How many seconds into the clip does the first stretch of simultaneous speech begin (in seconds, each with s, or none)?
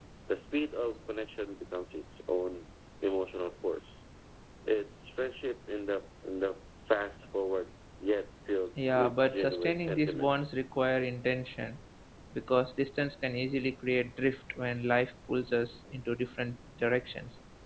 8.8 s